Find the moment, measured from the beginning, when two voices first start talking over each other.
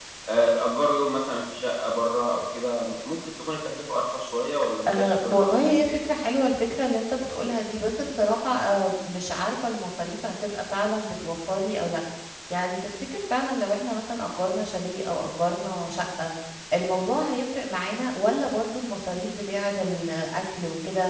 4.9 s

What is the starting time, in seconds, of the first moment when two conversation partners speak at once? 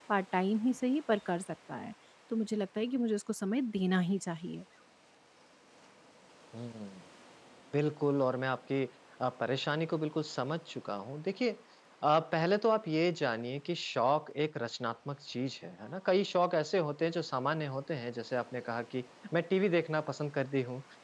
none

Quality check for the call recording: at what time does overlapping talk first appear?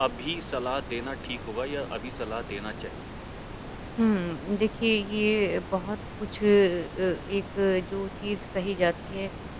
none

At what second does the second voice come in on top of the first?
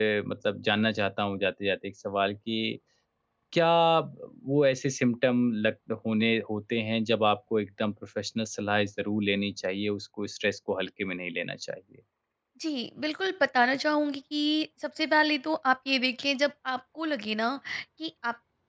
none

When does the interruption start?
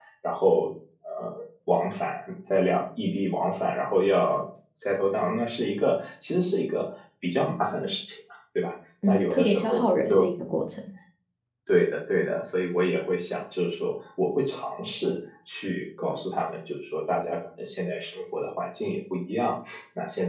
9.0 s

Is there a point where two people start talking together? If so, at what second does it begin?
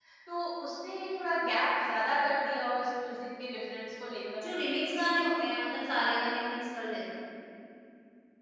none

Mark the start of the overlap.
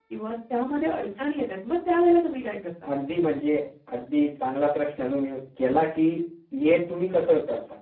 none

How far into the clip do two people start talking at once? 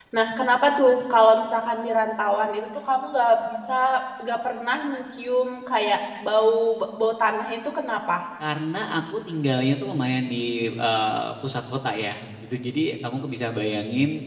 none

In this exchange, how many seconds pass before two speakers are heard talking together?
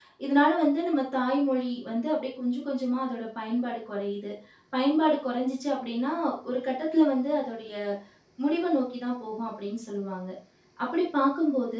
none

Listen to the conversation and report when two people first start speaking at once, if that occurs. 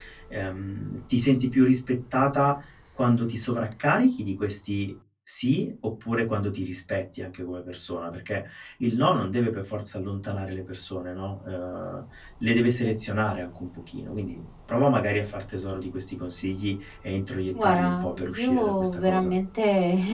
17.5 s

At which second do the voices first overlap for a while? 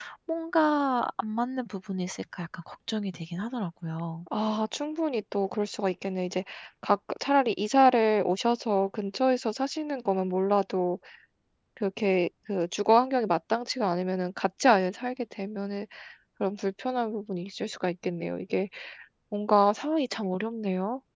none

